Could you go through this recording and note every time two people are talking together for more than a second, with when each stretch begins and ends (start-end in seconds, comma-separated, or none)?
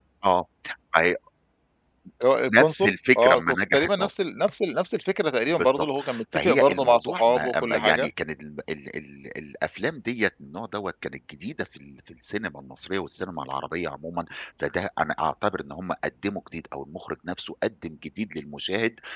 2.5-4.1, 5.5-8.1